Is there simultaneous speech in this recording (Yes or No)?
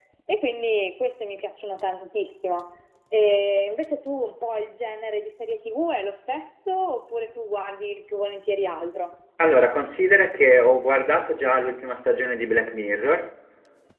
No